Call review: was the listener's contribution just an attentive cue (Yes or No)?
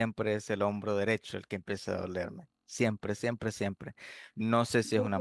Yes